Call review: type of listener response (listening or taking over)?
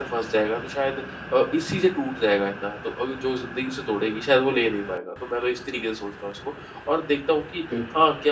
listening